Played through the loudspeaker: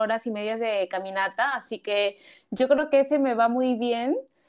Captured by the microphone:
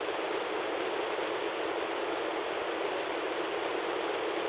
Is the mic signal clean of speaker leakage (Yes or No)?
Yes